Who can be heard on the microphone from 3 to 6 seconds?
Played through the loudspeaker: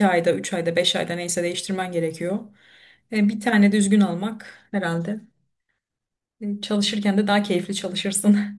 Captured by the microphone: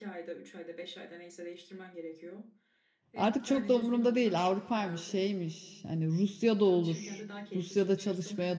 both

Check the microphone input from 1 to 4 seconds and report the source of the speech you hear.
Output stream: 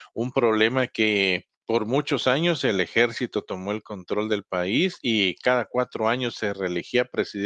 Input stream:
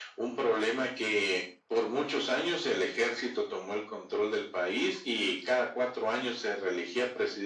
echo only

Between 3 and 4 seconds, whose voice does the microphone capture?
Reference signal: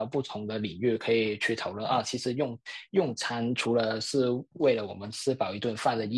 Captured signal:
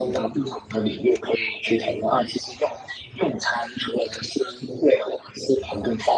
echo only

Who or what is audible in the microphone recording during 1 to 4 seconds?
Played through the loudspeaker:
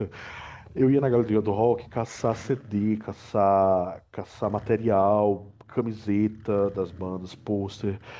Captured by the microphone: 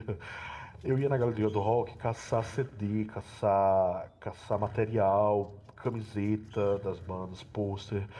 echo only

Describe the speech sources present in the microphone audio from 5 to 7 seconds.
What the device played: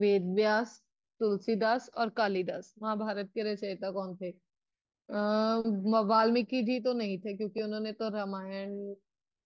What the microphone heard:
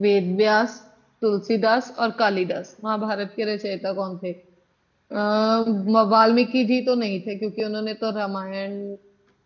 echo only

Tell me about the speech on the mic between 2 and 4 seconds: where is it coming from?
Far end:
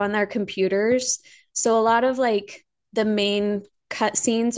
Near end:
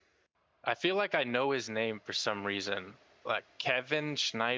user only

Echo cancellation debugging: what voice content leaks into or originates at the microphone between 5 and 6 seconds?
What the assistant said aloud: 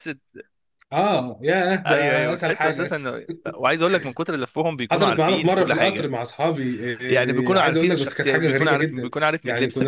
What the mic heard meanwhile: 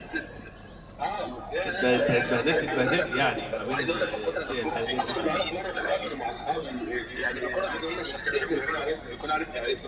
both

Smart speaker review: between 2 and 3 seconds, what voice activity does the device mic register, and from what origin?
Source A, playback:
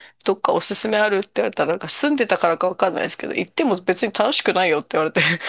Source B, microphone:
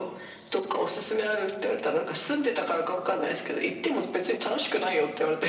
echo only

